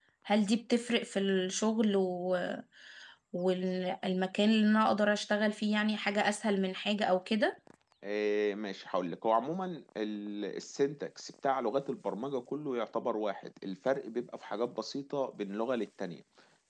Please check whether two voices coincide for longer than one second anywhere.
No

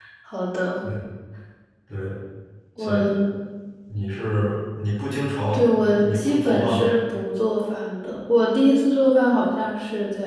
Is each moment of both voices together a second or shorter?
No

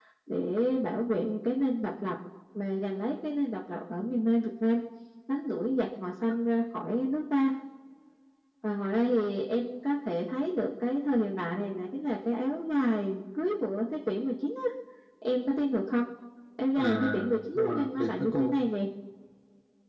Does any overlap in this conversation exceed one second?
Yes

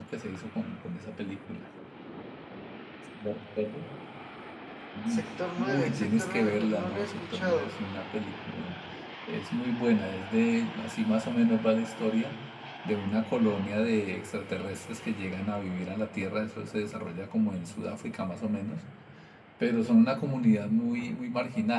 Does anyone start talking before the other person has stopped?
Yes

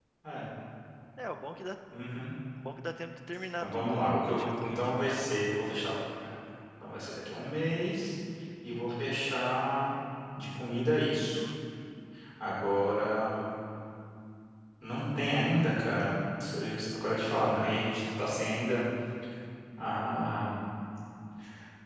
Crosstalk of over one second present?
Yes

